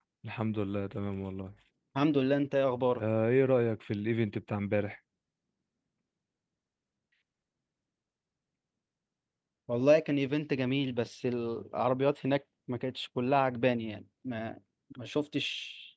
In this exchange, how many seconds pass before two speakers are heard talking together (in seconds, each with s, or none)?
none